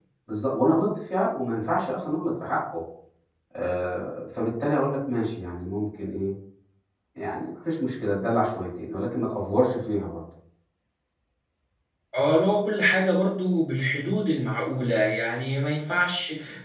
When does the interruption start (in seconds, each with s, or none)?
none